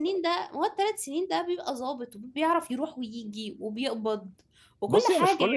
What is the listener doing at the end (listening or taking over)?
taking over